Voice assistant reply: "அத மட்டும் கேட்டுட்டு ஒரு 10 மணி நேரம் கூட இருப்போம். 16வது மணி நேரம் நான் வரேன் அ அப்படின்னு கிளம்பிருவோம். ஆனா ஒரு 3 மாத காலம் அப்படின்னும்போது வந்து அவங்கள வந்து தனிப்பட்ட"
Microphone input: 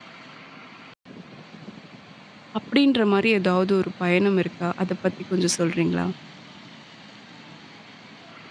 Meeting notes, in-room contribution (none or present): present